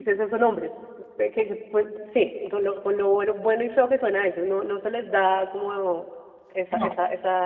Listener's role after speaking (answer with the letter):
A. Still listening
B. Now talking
A